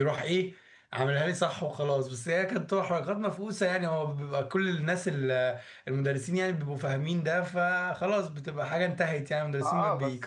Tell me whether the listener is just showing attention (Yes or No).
No